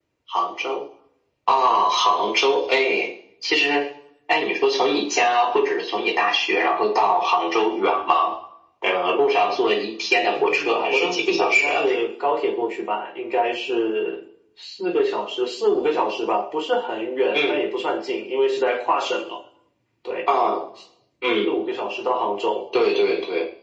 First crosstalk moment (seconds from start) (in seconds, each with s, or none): 10.3 s